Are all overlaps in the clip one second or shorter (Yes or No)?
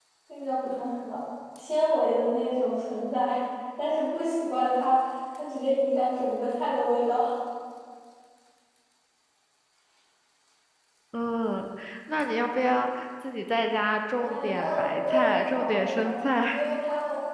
No